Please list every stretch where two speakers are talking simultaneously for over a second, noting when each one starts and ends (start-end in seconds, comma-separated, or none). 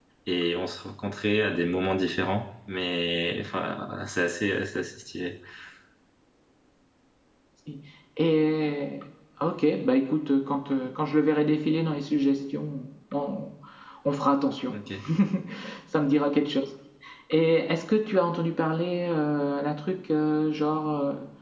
none